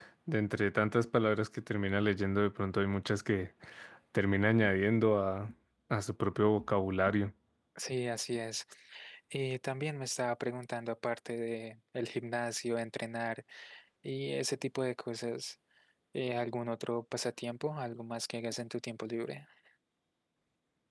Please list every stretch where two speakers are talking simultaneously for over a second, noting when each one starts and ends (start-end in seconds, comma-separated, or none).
none